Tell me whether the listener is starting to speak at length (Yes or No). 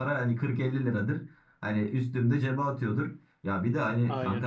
No